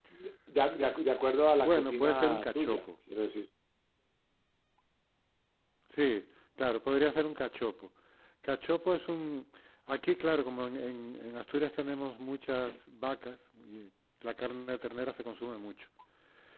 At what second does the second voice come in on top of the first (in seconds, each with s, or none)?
1.6 s